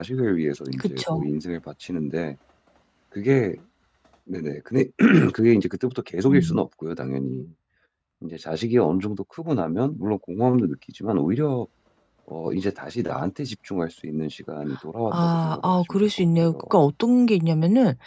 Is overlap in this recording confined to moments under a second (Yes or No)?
No